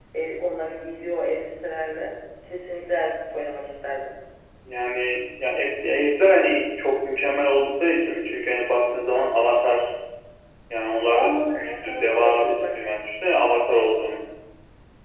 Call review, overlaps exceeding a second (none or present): present